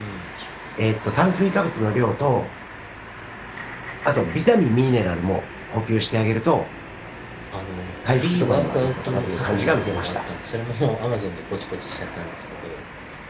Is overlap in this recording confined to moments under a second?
No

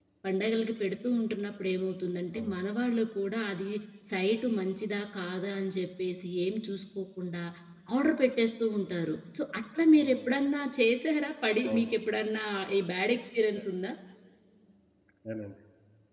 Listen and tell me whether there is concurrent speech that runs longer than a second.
No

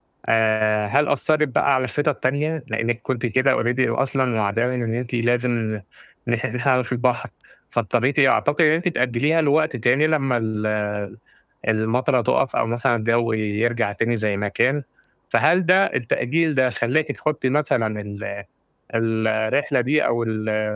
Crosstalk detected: No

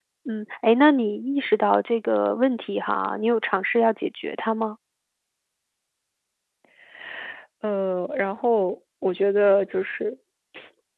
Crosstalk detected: No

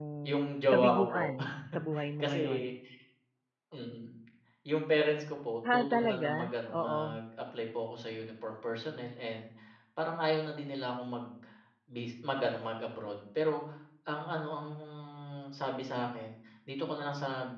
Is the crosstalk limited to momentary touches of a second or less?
No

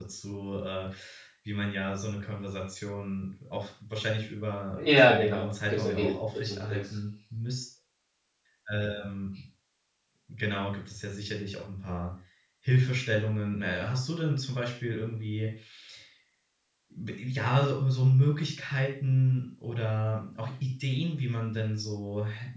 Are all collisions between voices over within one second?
No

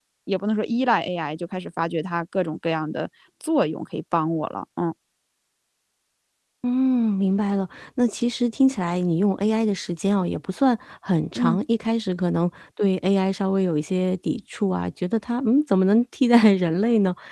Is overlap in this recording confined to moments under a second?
Yes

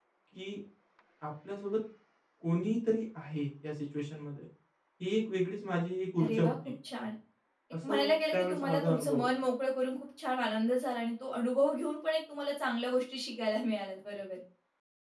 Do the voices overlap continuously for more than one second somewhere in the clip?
Yes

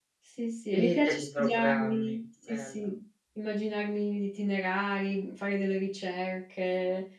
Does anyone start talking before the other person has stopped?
Yes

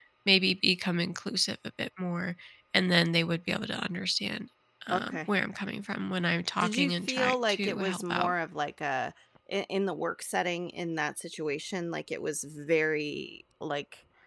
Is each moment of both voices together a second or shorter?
No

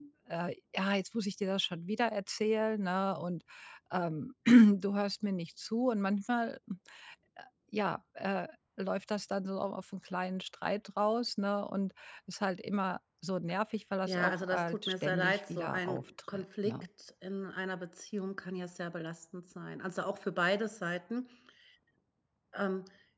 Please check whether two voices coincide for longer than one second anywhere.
Yes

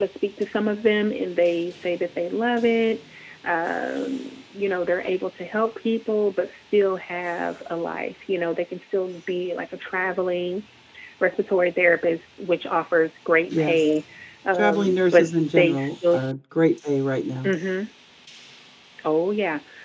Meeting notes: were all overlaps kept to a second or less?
No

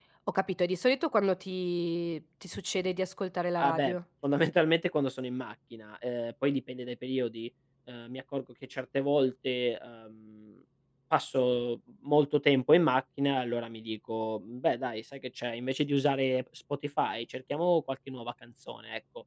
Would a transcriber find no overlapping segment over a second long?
Yes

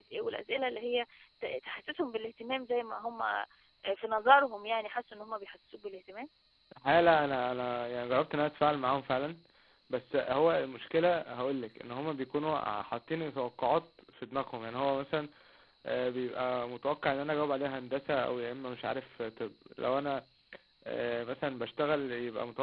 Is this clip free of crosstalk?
Yes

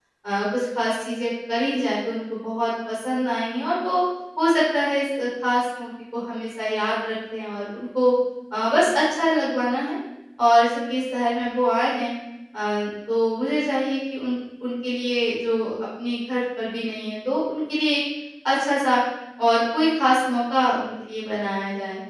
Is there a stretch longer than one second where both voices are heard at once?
No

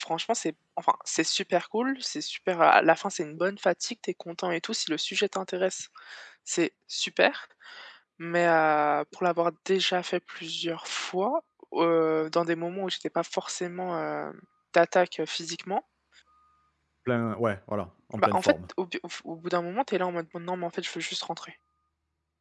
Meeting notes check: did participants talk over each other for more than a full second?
No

